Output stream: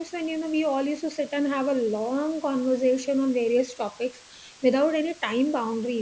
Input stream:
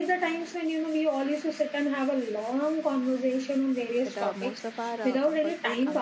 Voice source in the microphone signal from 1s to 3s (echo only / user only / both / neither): echo only